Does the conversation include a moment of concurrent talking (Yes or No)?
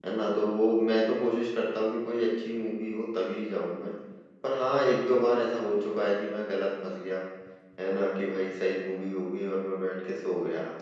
No